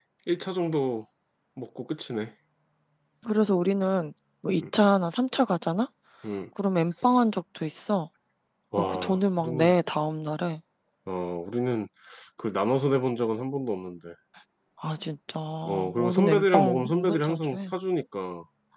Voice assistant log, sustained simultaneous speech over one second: present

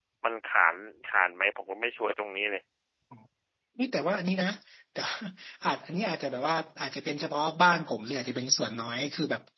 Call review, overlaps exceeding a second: none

